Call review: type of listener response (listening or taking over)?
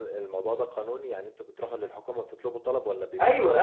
taking over